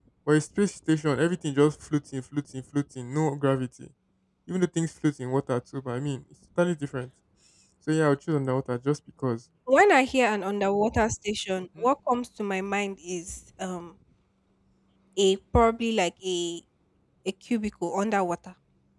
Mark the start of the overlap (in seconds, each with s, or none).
none